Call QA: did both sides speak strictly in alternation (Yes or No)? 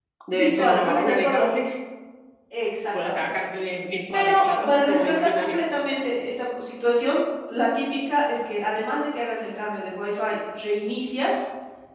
No